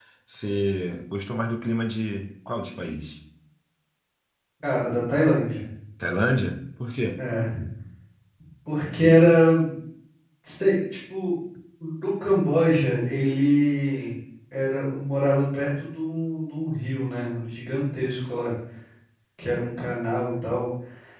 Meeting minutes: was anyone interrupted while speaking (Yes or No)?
No